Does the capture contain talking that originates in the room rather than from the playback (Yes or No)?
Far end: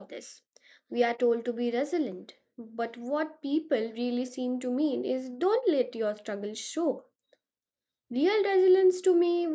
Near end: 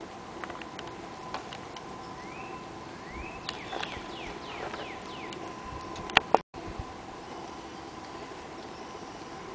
No